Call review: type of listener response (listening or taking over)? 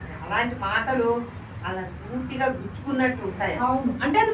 taking over